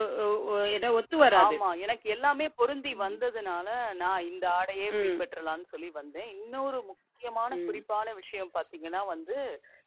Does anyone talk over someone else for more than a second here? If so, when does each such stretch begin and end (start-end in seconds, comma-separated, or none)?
none